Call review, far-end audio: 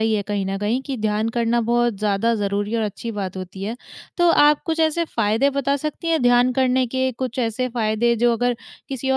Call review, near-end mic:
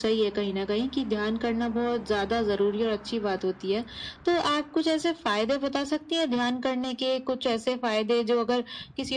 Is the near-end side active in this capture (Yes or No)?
No